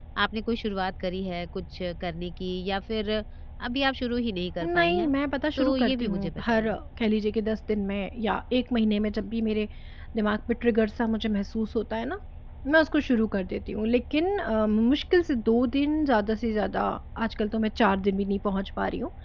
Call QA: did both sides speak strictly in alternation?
No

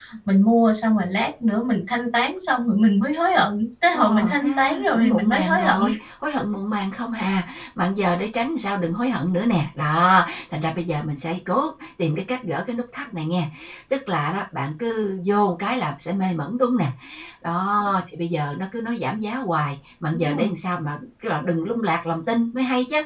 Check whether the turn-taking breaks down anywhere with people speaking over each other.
Yes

